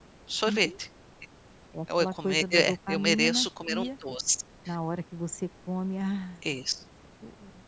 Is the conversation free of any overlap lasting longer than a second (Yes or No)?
No